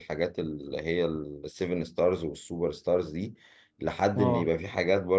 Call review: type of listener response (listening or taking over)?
listening